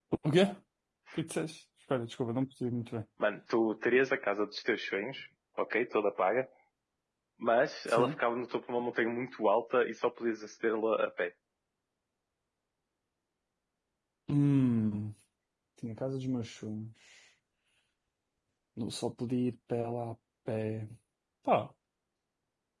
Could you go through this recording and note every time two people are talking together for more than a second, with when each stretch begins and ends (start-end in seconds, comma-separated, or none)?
none